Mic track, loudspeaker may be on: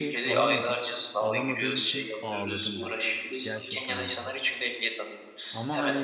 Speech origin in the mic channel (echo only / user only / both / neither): both